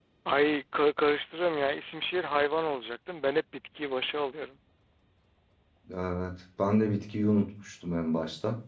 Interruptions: none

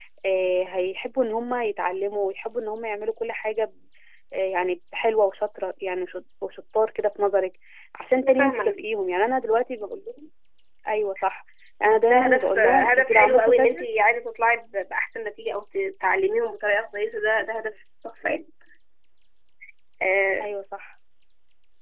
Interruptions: present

